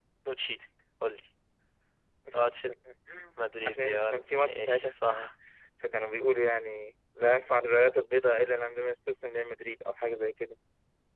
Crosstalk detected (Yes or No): Yes